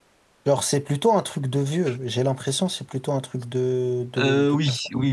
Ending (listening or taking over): taking over